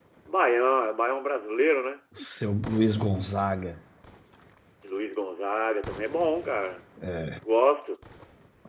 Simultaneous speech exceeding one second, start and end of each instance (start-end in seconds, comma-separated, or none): none